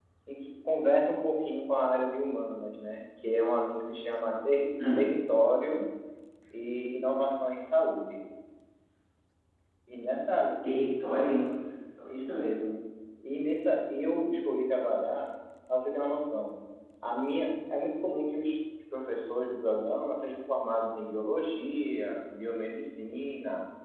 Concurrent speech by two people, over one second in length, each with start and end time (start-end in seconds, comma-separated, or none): none